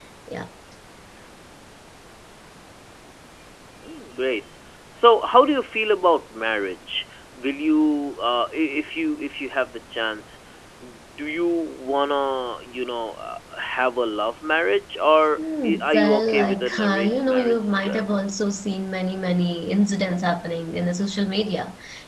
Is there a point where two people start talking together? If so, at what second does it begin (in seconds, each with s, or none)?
15.4 s